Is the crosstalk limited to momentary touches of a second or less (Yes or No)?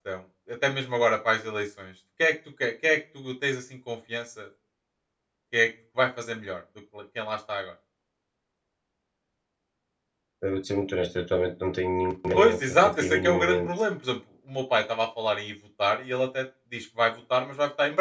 No